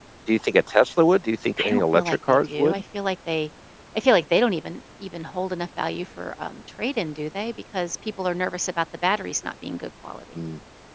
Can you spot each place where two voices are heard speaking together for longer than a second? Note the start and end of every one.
1.6-2.8

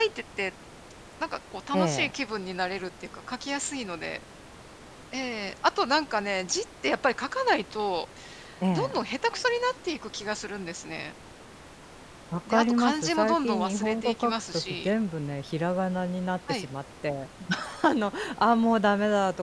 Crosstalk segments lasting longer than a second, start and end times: 12.5-14.9

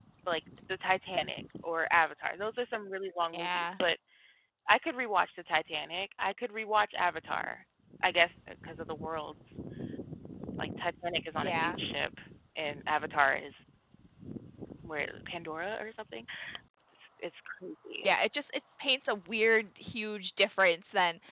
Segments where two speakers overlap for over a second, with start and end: none

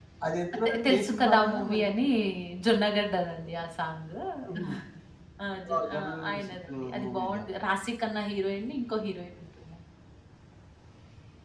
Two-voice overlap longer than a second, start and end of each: 0.7-1.9, 5.7-7.4

